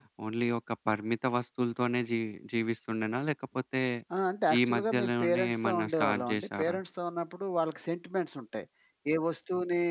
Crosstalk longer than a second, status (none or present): present